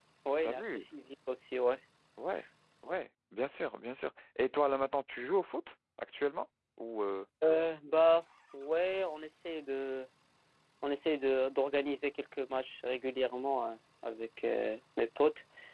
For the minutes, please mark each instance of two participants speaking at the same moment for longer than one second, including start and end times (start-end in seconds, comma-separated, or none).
none